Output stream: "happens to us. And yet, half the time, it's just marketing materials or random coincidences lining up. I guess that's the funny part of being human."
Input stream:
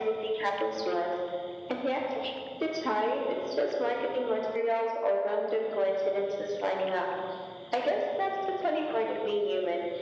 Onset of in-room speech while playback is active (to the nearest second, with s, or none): none